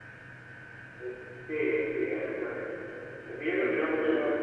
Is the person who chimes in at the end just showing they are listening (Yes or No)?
Yes